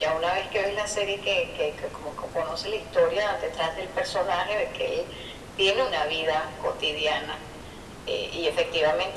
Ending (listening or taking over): listening